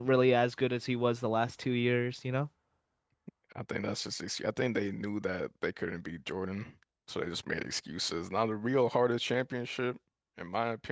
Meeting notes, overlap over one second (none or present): none